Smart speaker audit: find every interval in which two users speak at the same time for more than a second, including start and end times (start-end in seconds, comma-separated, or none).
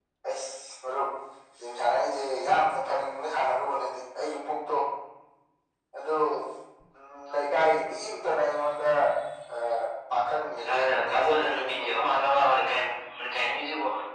10.6-11.9